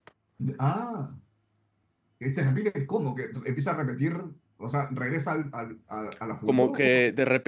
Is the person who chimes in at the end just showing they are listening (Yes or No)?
No